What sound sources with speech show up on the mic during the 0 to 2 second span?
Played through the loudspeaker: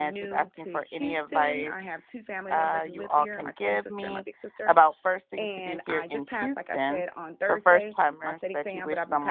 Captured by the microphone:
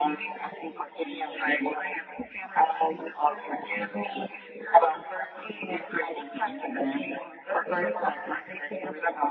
echo only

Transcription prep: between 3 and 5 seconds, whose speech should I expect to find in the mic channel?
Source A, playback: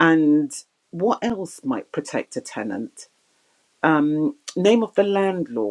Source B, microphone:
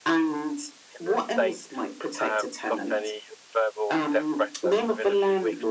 both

